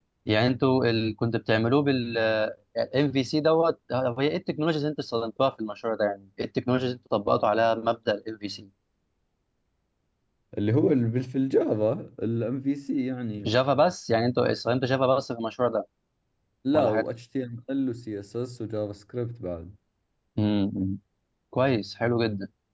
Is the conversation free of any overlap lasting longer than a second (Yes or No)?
Yes